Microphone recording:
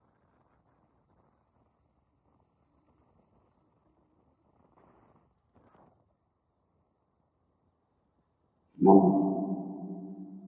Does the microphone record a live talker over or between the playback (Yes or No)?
Yes